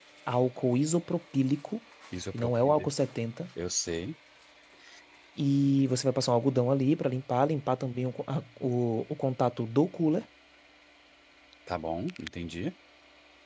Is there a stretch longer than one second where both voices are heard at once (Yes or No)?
No